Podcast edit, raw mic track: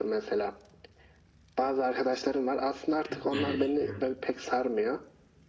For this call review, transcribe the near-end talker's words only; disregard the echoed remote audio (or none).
Çok mu eleştiriyordum?